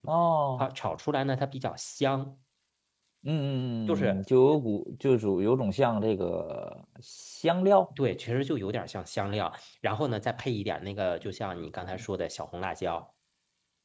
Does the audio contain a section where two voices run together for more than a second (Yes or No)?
No